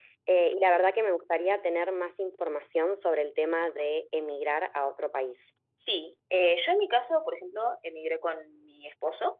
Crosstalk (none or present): none